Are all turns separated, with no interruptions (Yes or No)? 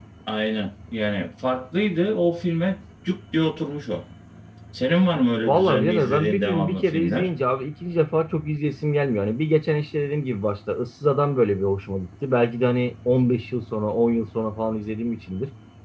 No